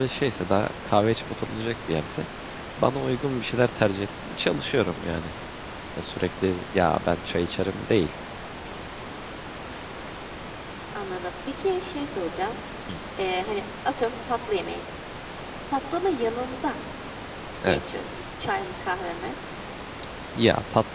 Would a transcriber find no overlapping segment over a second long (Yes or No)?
Yes